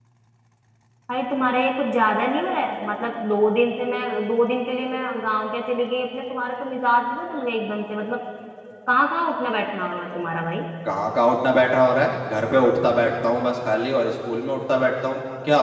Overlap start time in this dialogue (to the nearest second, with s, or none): none